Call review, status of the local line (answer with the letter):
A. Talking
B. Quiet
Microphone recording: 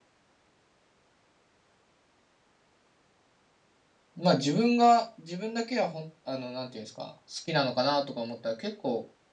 A